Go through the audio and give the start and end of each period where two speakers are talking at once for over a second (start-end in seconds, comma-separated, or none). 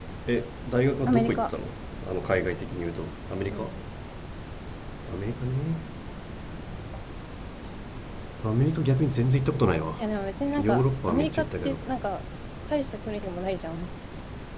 10.6-11.8